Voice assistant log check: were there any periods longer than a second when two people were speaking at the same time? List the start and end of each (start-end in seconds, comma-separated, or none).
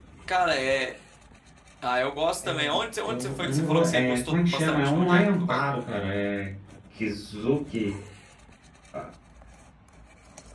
3.0-5.6